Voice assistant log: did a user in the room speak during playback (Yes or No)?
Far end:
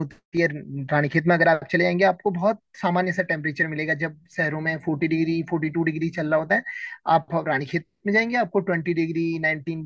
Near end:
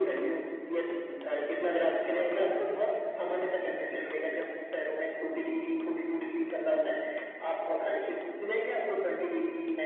Yes